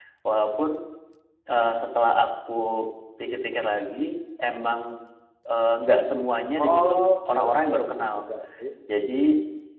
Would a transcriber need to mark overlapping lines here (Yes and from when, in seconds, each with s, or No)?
Yes, from 6.6 s